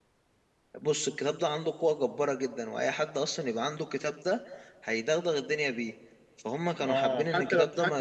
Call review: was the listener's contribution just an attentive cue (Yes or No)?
No